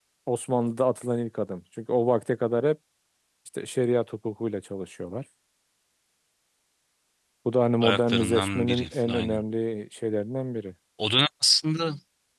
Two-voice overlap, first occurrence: 7.8 s

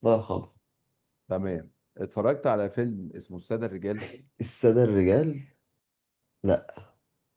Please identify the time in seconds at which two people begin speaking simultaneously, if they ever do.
none

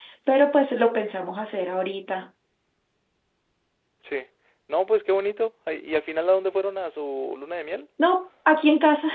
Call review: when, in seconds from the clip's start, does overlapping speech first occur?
none

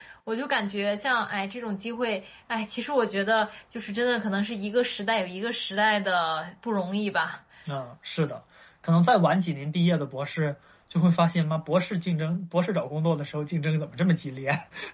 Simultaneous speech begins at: none

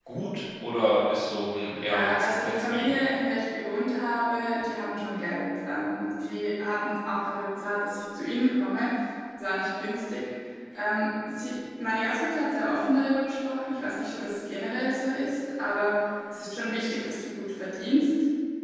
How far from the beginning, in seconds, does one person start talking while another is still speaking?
1.7 s

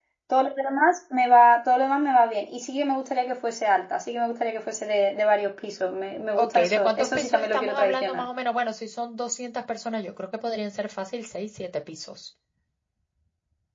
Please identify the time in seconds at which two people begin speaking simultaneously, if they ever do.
6.4 s

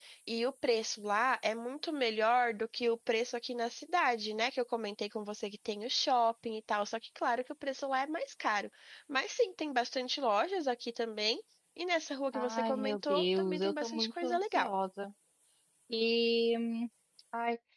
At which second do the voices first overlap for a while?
12.3 s

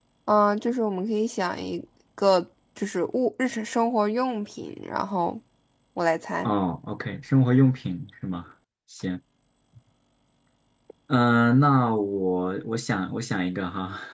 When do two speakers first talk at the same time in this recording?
none

